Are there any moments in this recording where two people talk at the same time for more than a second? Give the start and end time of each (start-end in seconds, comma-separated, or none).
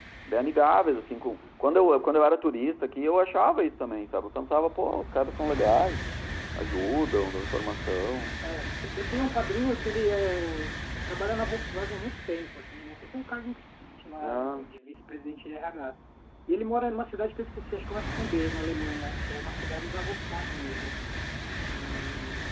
none